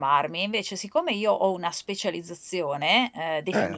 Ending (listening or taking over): listening